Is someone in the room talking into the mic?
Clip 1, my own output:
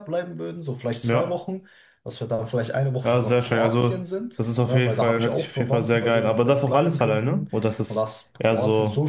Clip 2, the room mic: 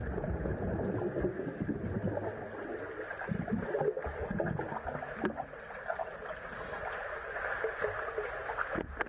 No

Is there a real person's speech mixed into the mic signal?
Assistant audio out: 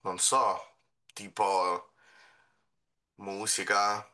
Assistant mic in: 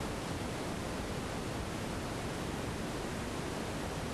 No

